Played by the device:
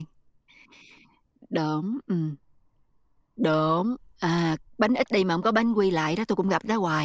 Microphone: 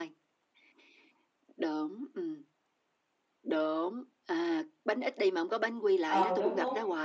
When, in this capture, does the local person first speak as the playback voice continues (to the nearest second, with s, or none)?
6 s